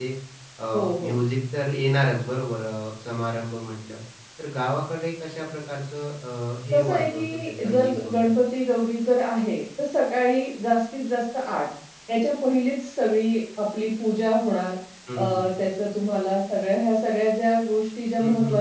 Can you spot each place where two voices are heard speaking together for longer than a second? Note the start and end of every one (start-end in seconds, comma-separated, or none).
6.7-8.3